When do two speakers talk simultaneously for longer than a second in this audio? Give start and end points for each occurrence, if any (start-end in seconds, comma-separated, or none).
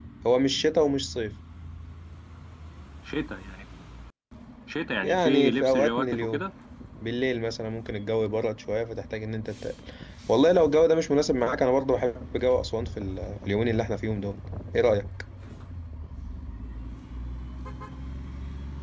5.0-6.5